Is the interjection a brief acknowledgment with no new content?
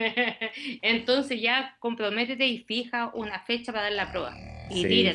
No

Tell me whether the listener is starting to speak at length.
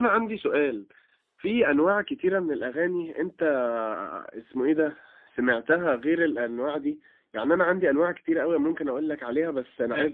No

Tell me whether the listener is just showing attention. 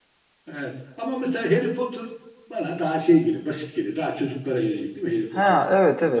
No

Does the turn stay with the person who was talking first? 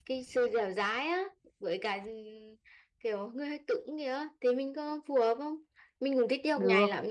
Yes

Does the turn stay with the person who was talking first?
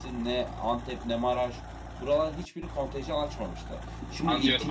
No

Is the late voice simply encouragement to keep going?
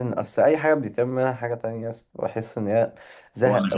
Yes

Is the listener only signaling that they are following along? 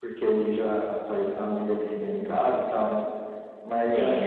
Yes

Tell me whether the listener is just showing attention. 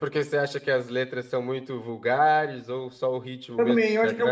No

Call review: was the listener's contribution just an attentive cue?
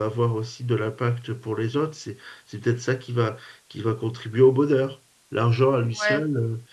Yes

